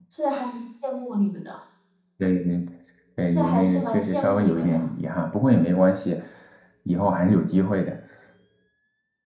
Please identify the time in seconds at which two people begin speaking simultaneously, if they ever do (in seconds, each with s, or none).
3.3 s